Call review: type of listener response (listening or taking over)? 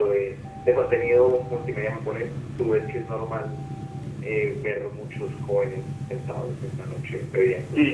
taking over